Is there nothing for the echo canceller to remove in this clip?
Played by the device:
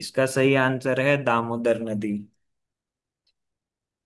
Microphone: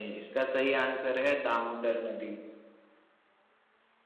No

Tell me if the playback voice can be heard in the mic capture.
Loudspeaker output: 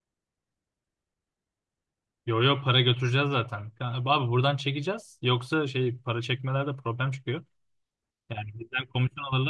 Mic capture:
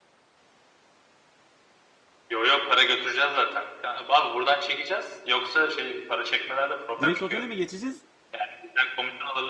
Yes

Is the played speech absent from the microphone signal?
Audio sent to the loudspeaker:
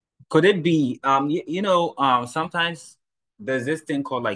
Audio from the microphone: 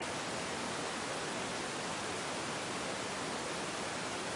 Yes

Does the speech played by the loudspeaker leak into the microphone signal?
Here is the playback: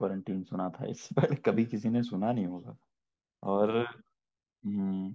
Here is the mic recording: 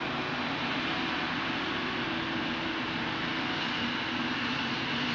No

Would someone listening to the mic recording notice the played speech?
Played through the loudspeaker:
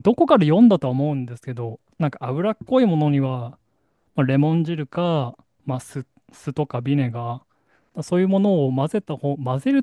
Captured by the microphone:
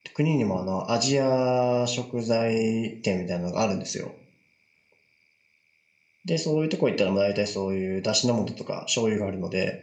No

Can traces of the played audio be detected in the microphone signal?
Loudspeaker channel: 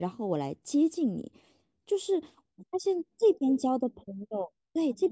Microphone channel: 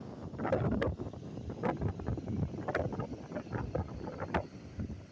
No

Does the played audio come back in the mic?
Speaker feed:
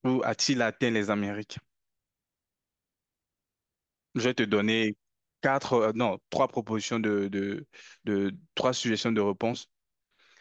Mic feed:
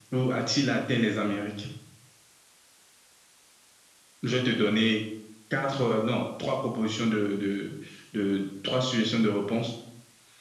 Yes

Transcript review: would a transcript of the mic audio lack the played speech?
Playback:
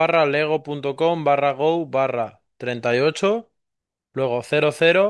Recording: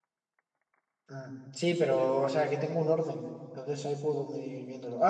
Yes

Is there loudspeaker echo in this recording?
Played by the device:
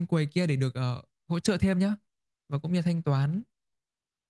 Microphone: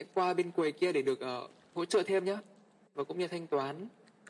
Yes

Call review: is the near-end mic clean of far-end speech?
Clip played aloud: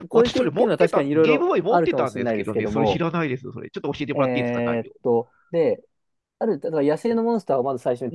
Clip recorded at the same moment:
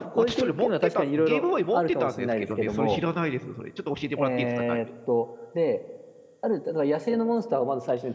No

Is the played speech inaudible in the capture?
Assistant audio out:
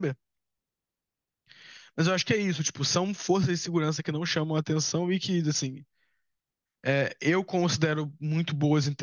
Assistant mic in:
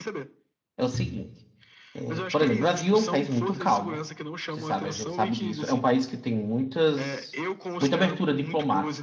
No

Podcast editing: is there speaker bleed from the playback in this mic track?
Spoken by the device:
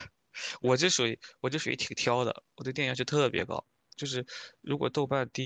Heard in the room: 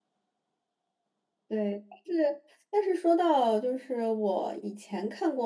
No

